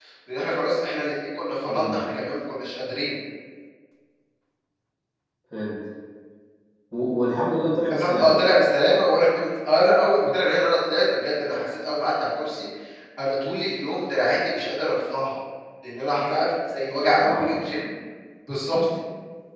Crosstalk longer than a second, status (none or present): none